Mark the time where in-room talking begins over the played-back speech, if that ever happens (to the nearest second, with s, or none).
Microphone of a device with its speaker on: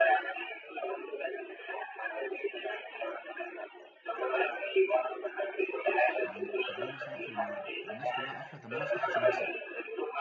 6 s